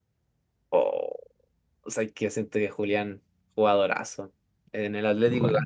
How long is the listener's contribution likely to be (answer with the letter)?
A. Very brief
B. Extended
A